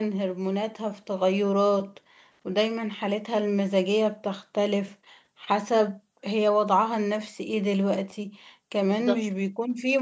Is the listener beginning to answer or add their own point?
No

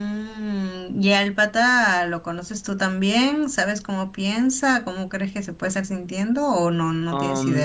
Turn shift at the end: Yes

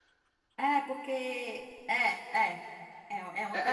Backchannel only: No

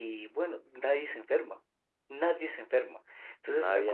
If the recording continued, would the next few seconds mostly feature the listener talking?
No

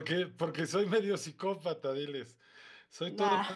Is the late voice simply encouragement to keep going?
Yes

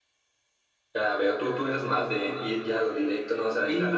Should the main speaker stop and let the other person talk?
Yes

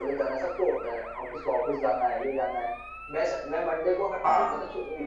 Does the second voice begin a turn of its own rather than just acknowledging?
No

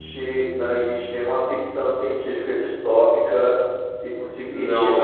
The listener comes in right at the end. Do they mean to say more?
No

